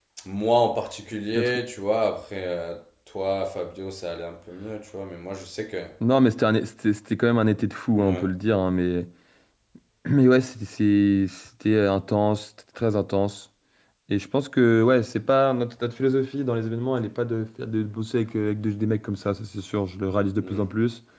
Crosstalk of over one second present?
No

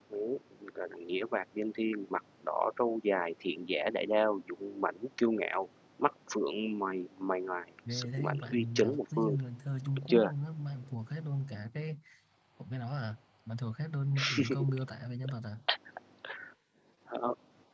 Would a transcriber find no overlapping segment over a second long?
No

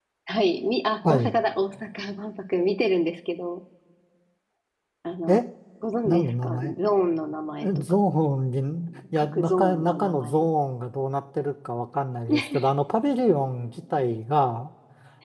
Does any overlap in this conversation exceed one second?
Yes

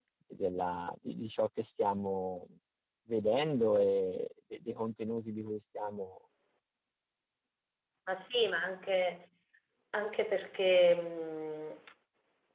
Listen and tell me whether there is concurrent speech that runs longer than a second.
No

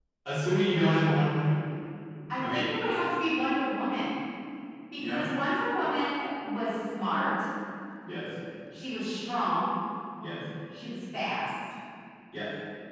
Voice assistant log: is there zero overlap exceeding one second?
Yes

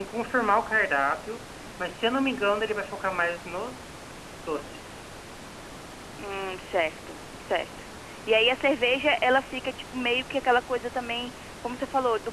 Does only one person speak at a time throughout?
Yes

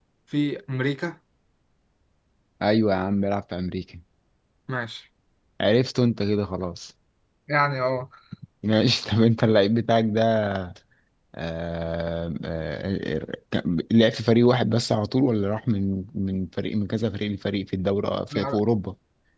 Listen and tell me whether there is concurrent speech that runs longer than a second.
No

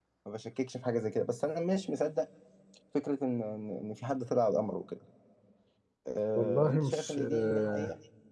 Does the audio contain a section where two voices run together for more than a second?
Yes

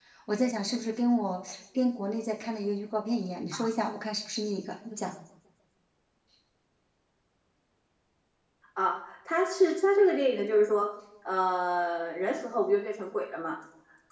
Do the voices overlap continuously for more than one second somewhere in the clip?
No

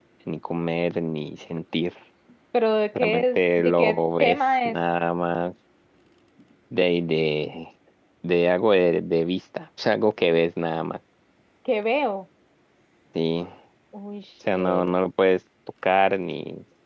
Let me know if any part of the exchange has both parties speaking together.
Yes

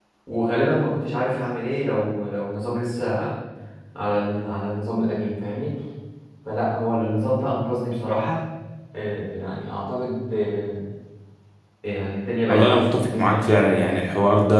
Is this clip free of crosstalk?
No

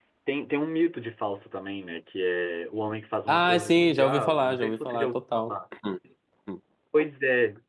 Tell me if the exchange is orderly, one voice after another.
No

